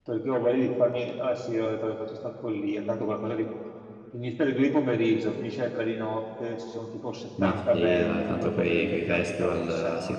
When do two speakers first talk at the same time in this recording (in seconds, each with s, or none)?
7.4 s